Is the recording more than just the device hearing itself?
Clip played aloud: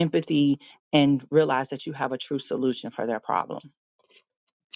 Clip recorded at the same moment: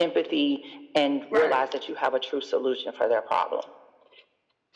Yes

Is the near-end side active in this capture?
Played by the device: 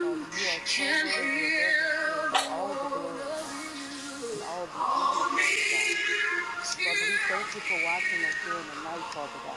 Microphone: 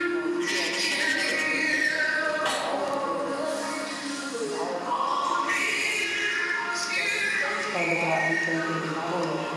Yes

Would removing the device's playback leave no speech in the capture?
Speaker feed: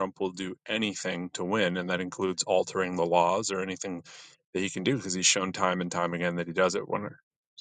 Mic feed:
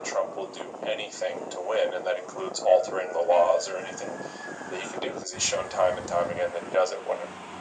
Yes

